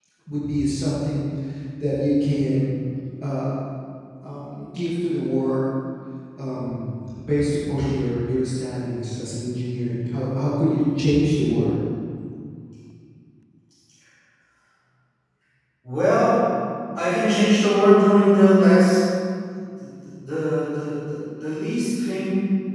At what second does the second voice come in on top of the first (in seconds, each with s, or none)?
none